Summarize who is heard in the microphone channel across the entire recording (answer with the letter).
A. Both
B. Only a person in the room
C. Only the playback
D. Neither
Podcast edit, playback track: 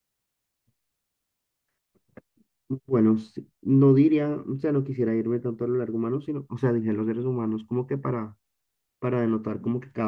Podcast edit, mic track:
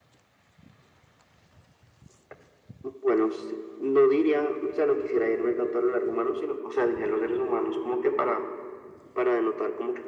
C